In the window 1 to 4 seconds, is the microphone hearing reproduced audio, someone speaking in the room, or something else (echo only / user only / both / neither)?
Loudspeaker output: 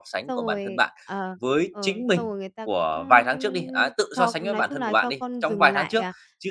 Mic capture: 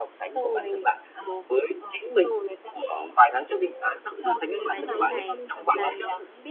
echo only